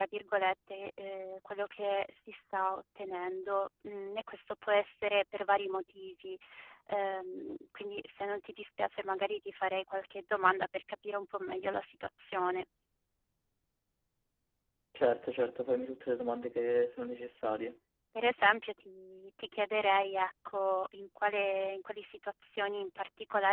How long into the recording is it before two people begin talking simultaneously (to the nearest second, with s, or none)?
none